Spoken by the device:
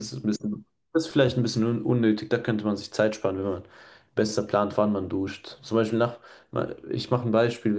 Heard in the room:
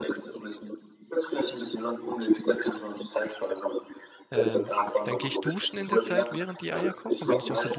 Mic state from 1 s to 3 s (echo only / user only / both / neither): echo only